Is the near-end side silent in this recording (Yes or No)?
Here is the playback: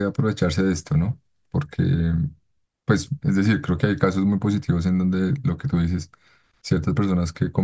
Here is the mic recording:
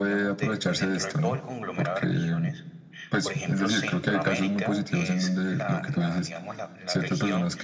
No